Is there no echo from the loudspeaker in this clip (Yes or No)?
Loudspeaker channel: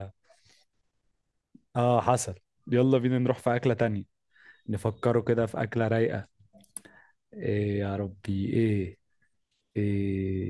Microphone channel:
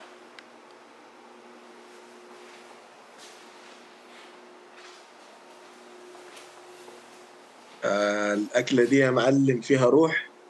Yes